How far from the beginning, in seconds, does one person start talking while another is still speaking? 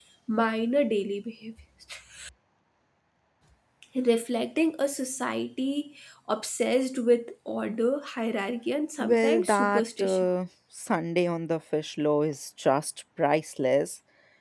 9 s

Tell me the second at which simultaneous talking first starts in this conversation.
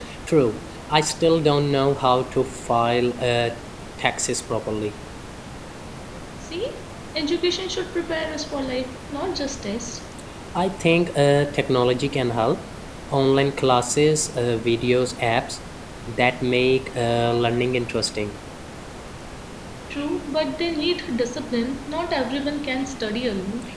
none

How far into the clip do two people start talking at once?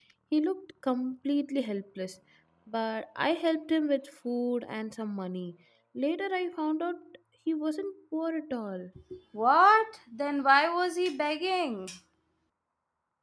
none

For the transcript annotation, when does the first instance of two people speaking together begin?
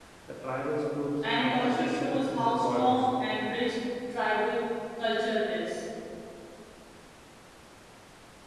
1 s

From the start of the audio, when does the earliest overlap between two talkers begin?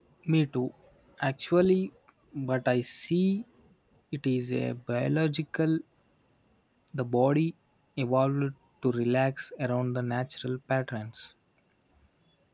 none

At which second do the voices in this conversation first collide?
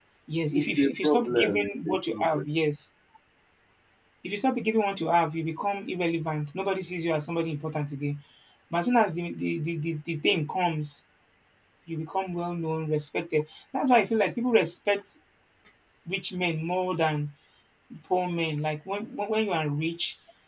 1 s

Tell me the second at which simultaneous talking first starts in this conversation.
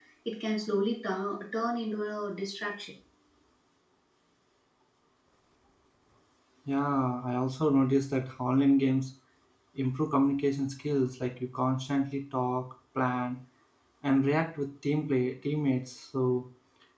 none

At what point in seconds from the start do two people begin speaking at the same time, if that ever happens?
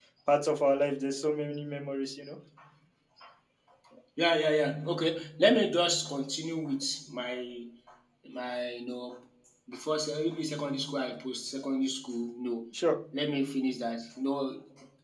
none

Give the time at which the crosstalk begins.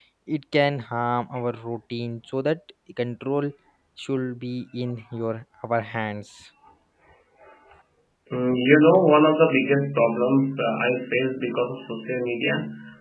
none

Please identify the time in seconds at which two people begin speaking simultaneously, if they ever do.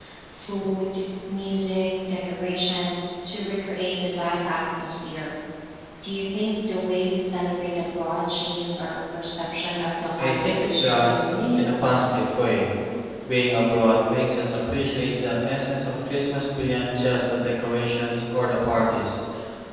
10 s

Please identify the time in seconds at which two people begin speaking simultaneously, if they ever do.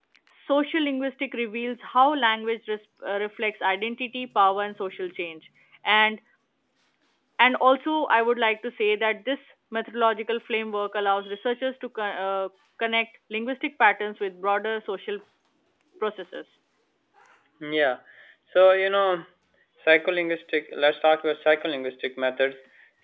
none

